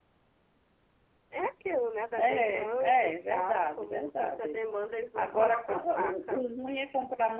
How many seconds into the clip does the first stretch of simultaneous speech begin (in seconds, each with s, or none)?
2.2 s